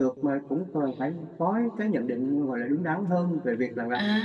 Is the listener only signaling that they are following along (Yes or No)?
No